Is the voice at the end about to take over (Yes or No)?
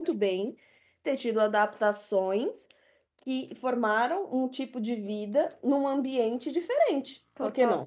Yes